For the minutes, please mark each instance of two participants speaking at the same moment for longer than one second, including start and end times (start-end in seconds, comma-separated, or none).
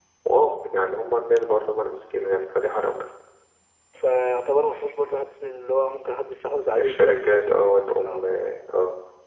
6.8-8.2